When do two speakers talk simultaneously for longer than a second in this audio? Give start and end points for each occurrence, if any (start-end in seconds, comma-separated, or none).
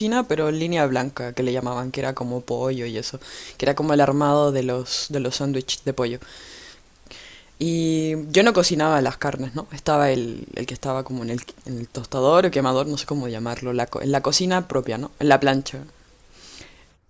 none